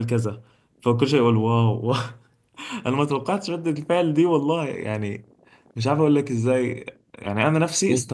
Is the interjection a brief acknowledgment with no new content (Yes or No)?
Yes